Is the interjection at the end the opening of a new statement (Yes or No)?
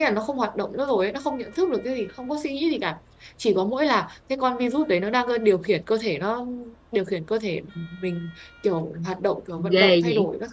Yes